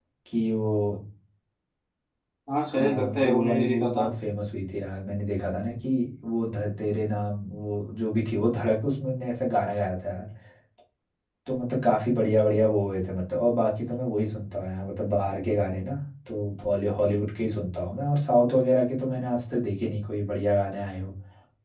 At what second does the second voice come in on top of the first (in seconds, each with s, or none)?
2.7 s